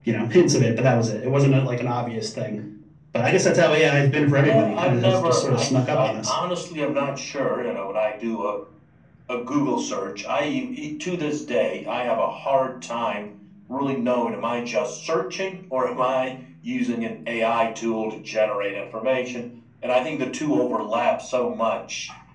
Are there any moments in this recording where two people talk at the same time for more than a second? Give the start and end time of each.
4.4-6.3

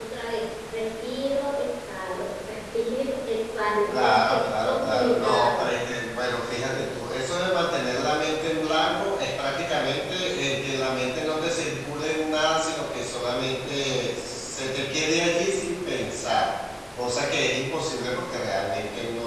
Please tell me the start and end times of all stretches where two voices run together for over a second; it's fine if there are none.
3.9-5.7

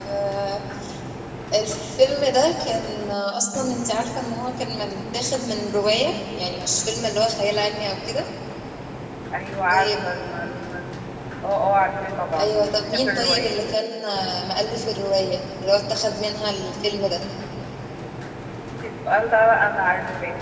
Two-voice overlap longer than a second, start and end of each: 12.4-13.6

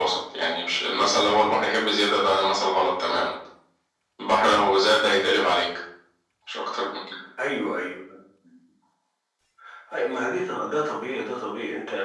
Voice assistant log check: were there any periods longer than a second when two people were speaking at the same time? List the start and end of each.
none

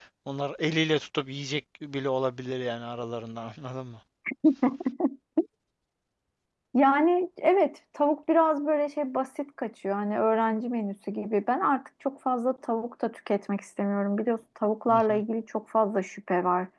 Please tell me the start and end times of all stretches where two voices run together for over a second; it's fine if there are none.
none

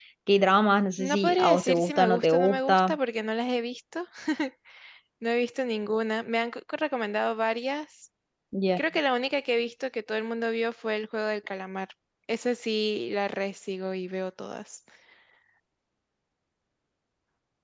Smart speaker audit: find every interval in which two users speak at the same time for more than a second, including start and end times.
1.0-3.0

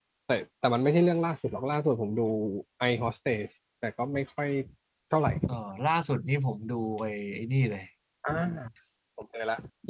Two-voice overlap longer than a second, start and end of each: none

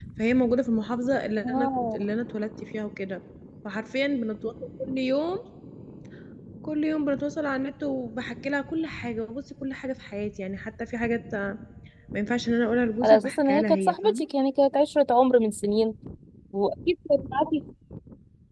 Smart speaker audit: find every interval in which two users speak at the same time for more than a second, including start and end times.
13.0-14.3

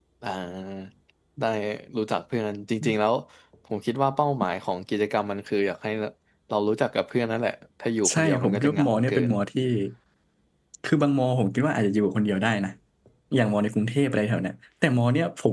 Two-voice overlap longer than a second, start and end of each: 8.1-9.3

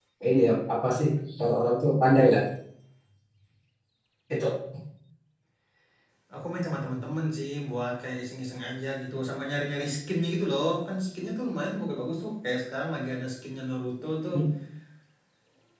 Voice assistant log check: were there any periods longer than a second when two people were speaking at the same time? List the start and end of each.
none

